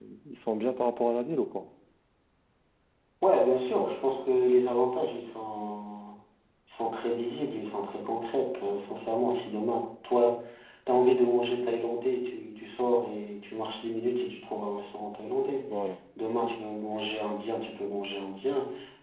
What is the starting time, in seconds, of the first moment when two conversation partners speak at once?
none

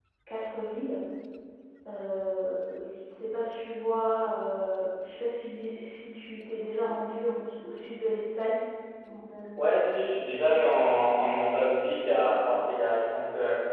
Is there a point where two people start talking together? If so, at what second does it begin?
none

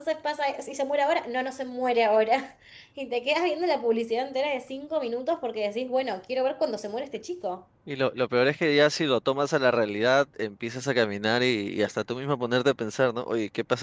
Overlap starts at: none

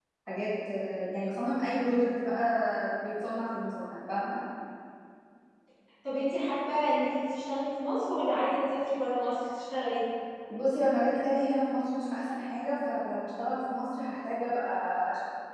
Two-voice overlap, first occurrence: none

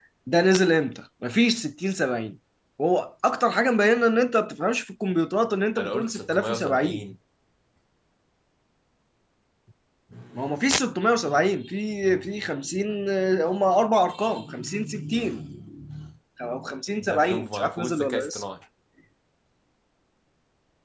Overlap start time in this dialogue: 5.8 s

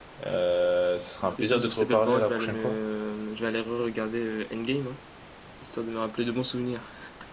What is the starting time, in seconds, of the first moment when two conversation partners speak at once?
1.3 s

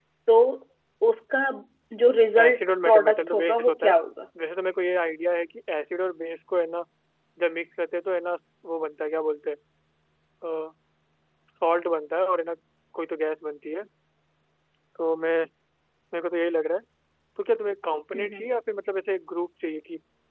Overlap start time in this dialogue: 2.4 s

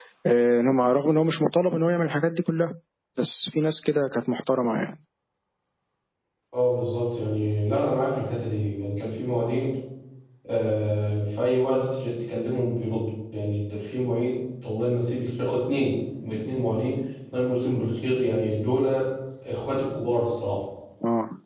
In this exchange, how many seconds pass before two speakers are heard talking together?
none

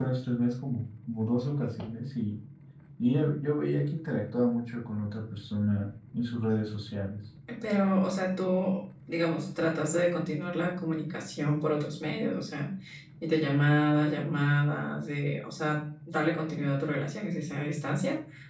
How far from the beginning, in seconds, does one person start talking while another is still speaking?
none

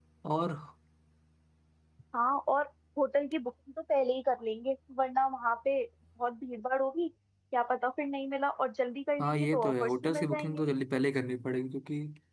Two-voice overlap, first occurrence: 9.2 s

